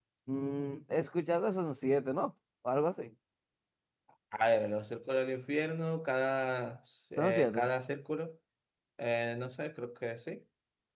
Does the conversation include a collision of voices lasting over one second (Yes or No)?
No